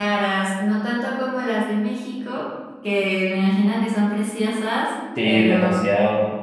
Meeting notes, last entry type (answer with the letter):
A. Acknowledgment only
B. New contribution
B